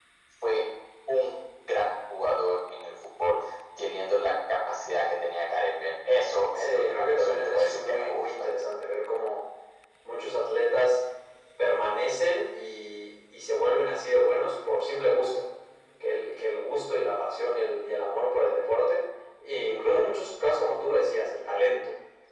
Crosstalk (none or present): present